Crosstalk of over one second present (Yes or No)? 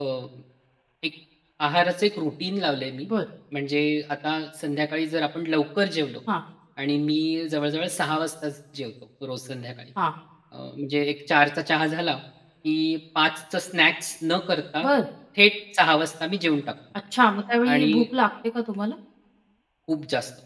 No